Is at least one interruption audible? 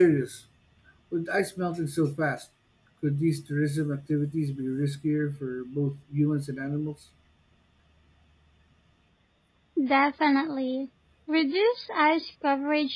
No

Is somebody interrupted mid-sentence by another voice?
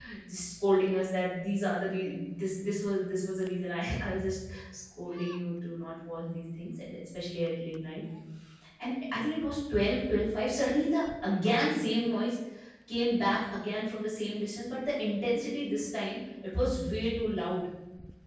No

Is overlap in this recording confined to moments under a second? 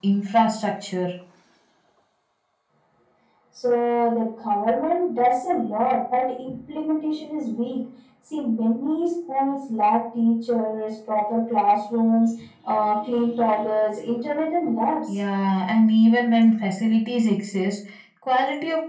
Yes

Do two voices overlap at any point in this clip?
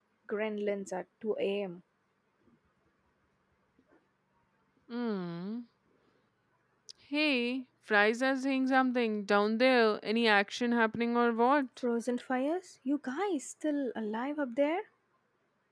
No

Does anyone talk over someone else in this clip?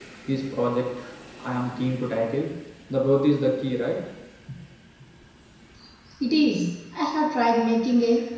No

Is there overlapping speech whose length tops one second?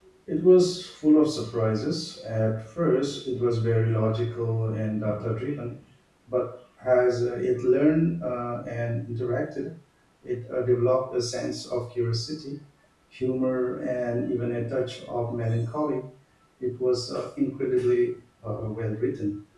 No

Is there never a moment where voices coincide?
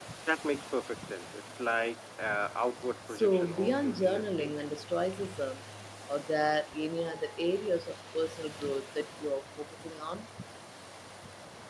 No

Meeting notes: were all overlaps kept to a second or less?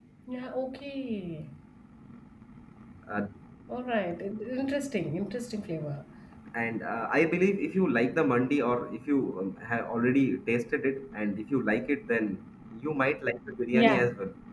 Yes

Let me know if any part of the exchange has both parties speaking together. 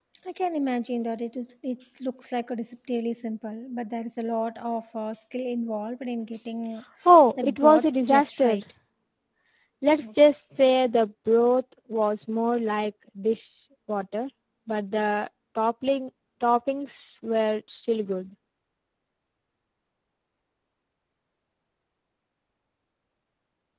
Yes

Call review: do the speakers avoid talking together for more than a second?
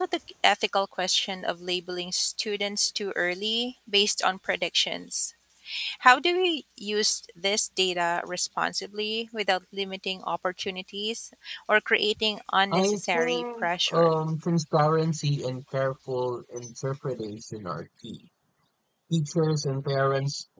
No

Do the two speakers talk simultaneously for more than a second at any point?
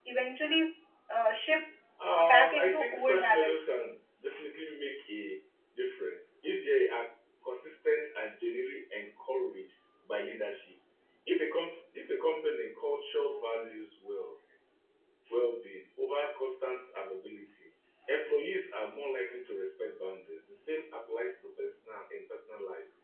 Yes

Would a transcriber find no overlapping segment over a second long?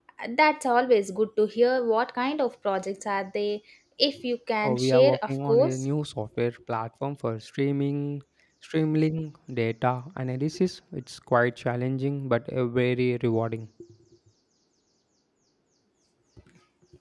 No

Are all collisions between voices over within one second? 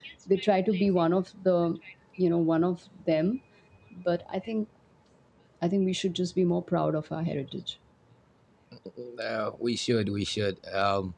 Yes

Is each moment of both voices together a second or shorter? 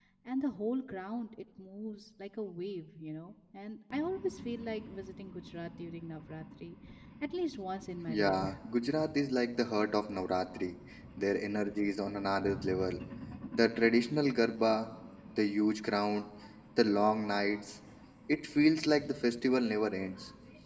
Yes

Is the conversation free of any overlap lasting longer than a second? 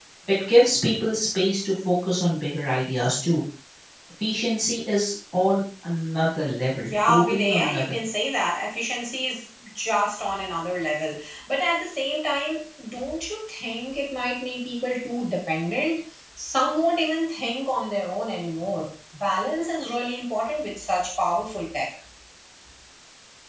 No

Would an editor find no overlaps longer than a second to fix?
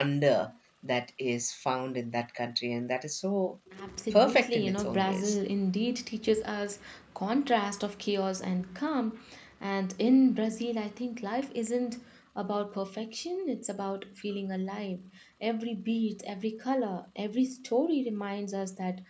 No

